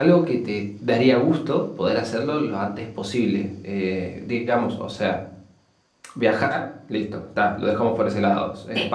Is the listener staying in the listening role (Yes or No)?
Yes